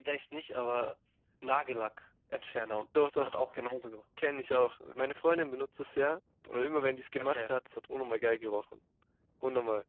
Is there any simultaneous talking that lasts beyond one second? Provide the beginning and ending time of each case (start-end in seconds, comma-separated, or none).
none